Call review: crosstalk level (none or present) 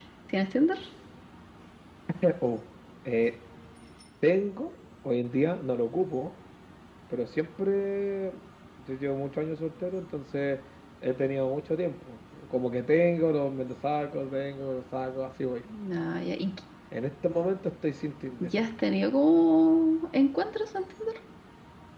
none